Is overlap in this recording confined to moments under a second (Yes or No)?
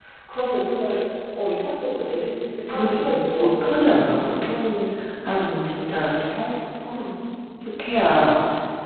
No